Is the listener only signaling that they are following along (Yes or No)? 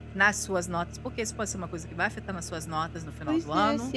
No